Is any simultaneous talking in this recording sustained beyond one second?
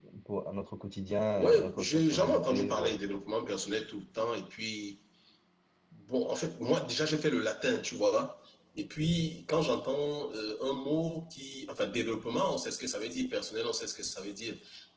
Yes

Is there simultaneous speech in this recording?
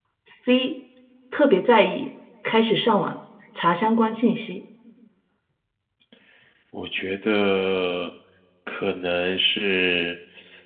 No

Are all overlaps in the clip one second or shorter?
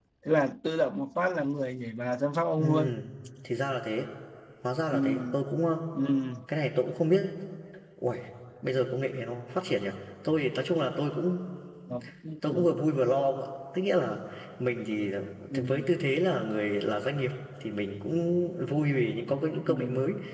Yes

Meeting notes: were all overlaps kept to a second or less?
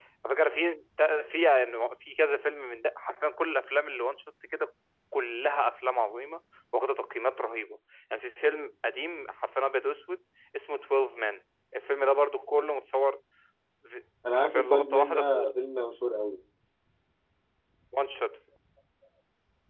No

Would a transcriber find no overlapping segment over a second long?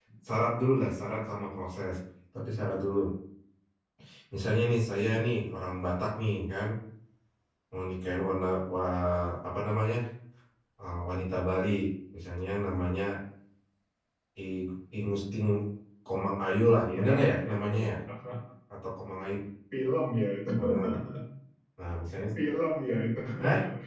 No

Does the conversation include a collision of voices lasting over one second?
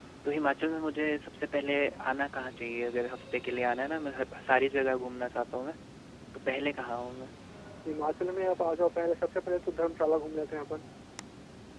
No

